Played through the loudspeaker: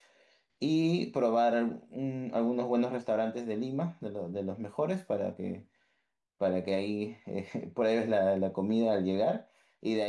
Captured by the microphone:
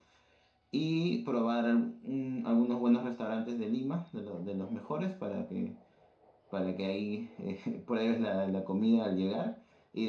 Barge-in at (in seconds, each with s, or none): none